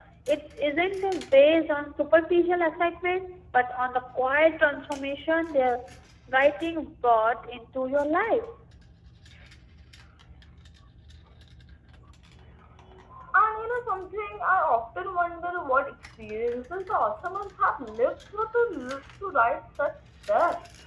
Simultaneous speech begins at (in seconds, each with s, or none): none